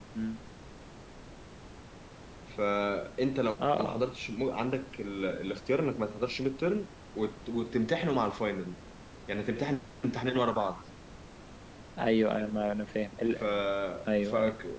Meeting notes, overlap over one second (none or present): none